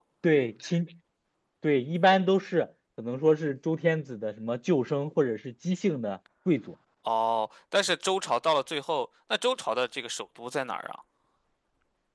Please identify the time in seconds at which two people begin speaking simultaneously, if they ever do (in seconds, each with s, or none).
none